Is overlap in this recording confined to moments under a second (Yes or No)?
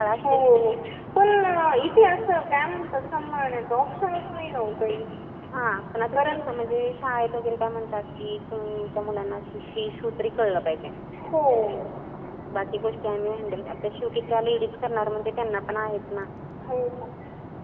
Yes